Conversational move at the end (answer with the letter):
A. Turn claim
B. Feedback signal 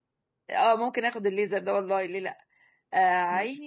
B